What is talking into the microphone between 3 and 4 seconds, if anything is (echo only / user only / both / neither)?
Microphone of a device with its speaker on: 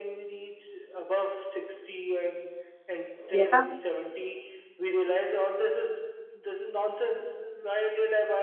both